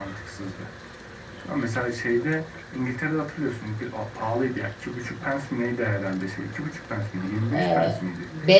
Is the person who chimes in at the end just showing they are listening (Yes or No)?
No